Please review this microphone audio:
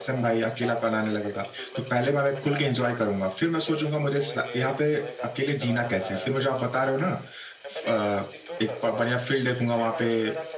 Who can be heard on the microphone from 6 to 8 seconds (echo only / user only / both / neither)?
both